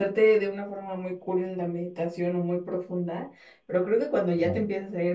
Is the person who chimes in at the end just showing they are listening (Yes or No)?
Yes